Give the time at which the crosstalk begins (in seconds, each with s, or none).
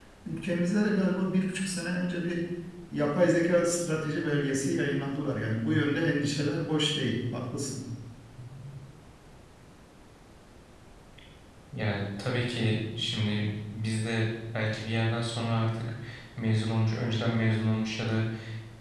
none